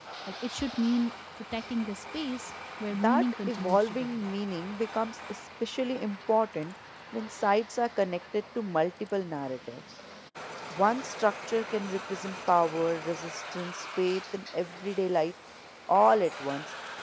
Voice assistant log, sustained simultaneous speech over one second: present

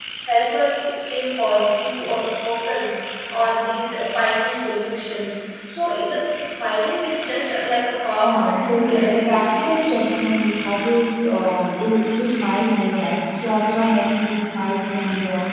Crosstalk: present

